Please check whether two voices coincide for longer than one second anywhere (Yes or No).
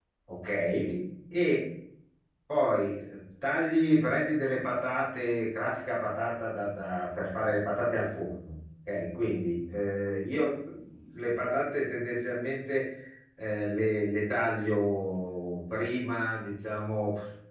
No